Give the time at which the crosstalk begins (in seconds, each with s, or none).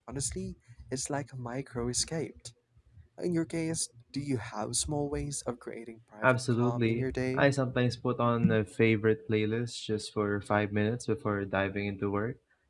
6.2 s